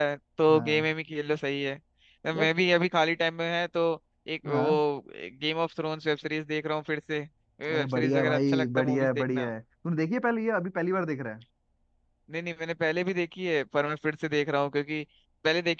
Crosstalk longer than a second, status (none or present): present